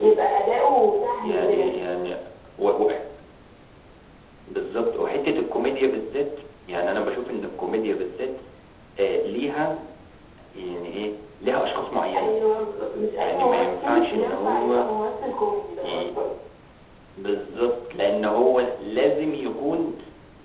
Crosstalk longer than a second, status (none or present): present